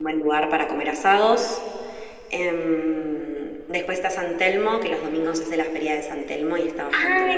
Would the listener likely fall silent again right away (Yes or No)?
No